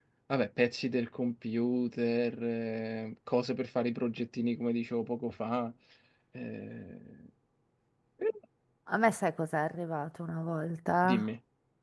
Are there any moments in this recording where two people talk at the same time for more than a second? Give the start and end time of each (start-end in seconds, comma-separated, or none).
none